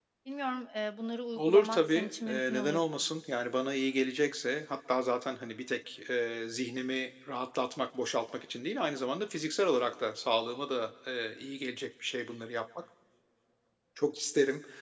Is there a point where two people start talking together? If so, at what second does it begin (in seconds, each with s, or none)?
1.4 s